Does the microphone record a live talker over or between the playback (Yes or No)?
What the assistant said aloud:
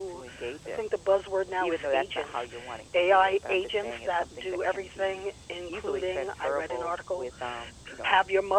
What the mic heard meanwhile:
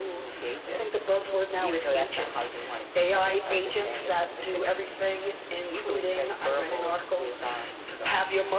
No